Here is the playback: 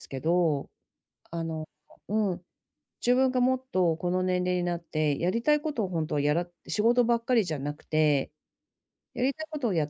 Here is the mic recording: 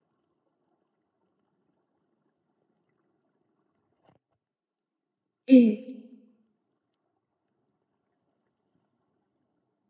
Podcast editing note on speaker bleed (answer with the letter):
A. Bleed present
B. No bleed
B